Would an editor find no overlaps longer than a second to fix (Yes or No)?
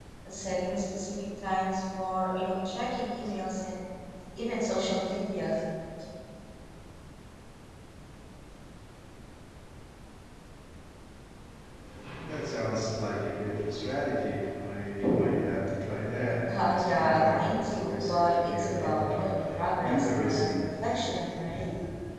No